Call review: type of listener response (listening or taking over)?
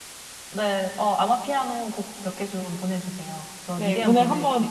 taking over